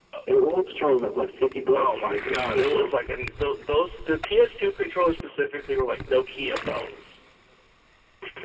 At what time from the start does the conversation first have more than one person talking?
1.7 s

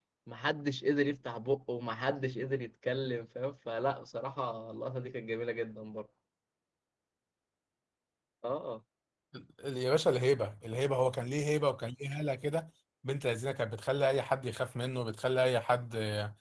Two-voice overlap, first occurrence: none

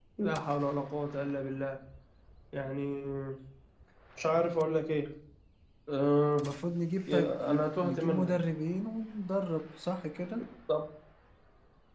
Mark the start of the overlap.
7.1 s

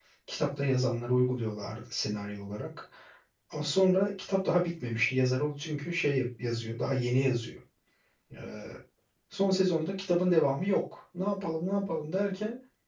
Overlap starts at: none

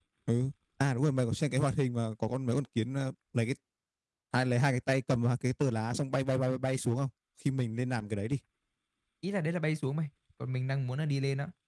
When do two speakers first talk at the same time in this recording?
none

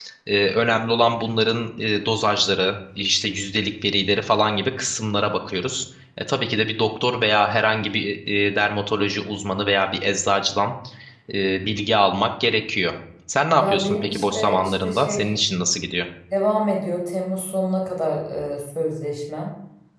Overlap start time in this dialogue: 13.6 s

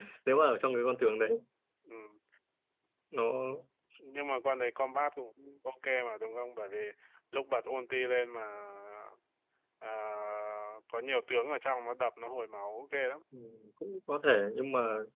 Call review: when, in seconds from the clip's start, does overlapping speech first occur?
none

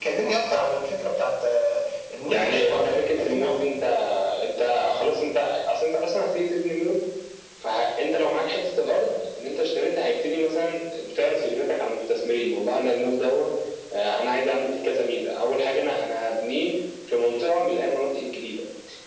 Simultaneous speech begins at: 2.2 s

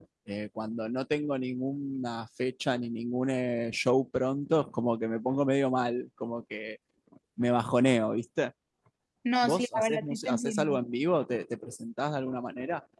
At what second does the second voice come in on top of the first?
9.4 s

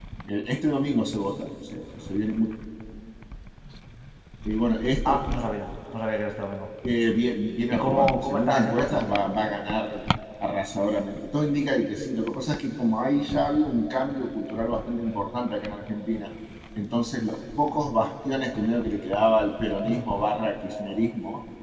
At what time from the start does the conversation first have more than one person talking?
7.7 s

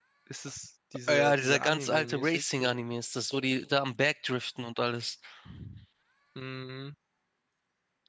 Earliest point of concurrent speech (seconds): 1.1 s

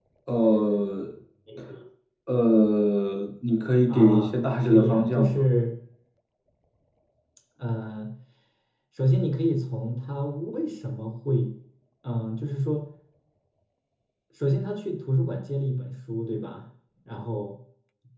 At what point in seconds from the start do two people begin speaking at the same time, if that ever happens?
3.9 s

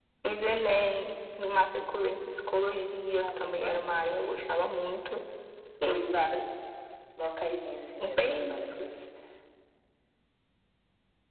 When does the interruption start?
3.2 s

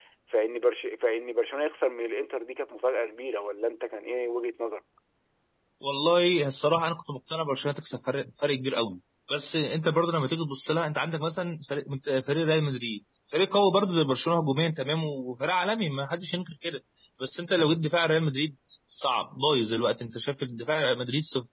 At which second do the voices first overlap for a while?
none

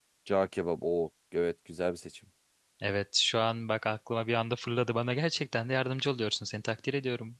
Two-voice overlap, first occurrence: none

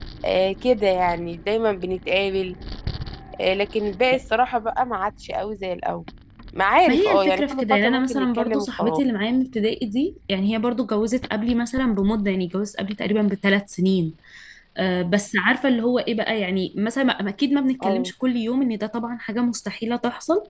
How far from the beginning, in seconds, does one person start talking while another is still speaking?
6.9 s

